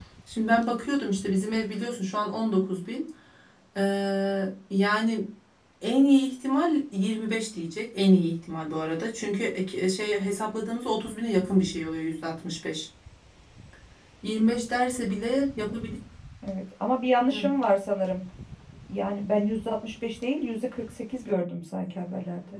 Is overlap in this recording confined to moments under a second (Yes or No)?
Yes